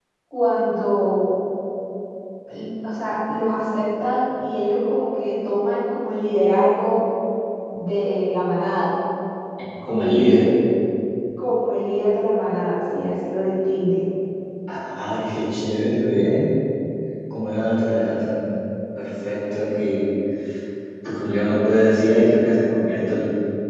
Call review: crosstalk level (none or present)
none